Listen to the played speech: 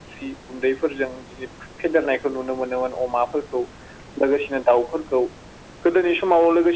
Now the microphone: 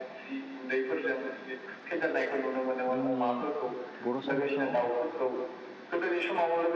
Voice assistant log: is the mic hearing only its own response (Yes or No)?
No